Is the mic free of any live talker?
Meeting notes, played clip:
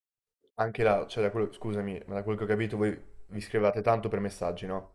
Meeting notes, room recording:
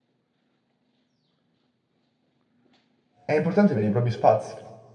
No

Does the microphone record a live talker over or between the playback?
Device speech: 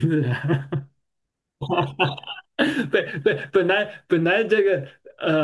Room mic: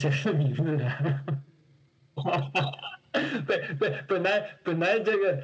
No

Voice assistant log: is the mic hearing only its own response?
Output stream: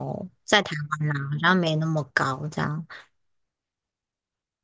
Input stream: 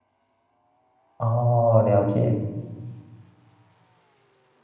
No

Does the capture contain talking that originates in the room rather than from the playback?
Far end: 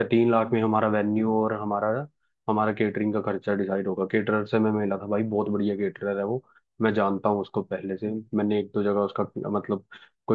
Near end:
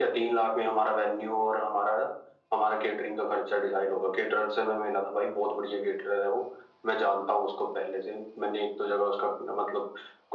No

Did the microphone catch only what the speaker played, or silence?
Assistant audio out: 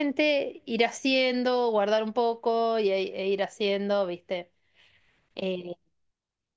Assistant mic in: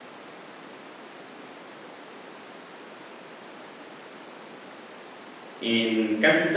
No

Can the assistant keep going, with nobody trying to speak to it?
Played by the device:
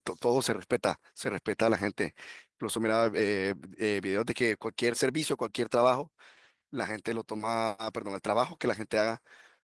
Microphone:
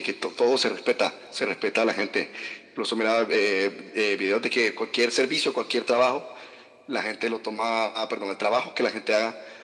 Yes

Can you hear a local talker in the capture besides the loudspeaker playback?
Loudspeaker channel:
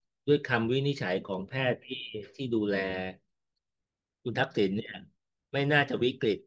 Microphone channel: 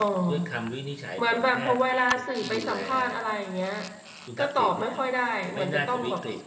Yes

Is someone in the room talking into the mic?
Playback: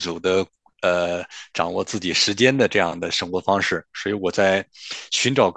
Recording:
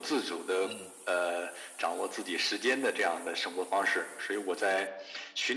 Yes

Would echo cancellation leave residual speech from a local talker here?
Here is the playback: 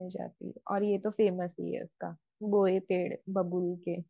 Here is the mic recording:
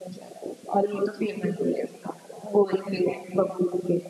No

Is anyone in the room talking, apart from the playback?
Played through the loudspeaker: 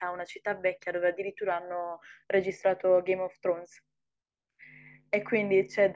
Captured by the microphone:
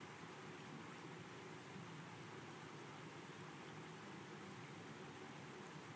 No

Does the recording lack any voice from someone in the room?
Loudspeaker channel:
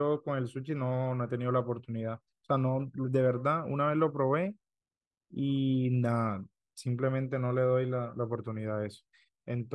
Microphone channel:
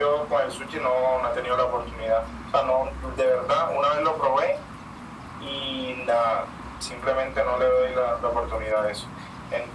Yes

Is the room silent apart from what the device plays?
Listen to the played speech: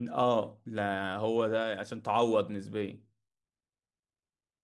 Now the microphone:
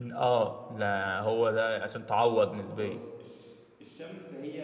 No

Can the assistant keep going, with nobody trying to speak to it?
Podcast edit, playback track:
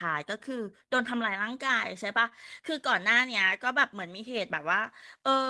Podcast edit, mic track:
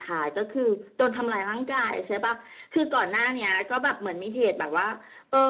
Yes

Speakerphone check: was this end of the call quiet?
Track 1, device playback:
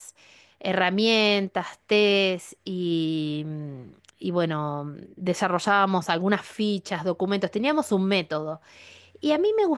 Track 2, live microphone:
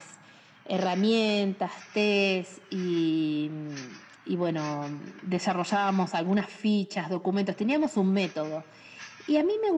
Yes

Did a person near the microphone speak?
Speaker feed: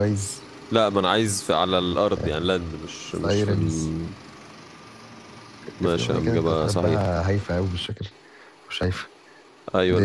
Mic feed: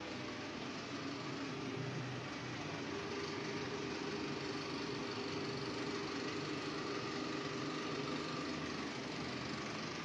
No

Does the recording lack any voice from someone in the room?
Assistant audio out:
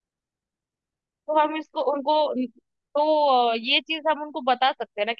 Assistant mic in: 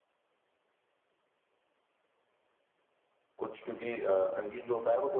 No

